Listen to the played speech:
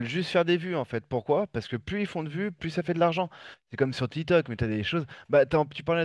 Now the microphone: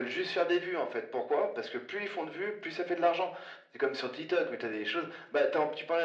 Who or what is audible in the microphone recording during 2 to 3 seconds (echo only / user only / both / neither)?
echo only